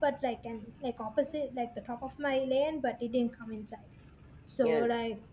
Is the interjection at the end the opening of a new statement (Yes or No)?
No